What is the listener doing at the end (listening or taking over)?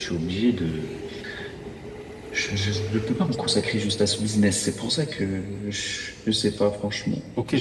taking over